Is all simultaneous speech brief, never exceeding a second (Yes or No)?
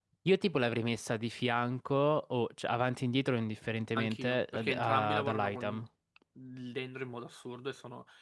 No